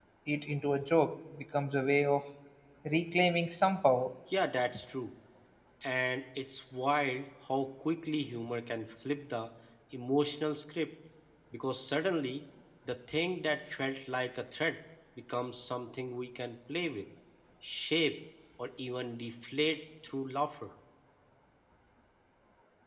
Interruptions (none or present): none